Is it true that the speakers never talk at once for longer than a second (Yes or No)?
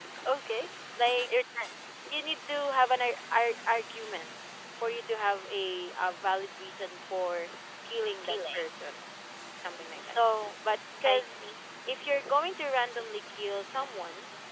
Yes